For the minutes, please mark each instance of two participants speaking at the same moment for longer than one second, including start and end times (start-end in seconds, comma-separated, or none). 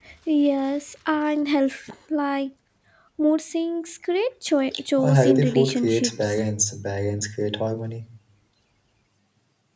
5.0-6.4